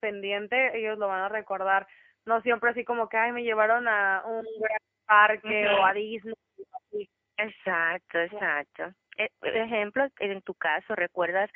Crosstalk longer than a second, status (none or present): none